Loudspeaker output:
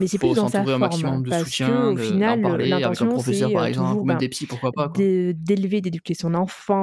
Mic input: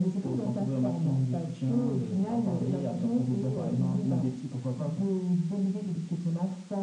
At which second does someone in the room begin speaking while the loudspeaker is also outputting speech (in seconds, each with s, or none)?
none